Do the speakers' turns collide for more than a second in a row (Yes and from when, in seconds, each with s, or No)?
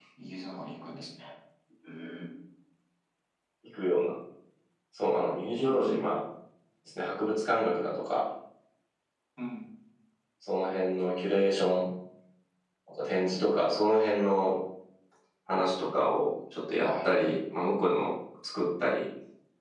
No